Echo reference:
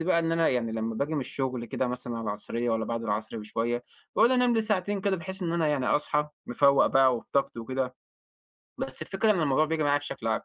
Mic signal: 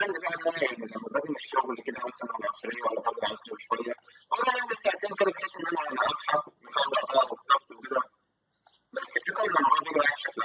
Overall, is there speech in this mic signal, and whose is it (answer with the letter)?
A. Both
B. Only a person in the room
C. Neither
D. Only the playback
D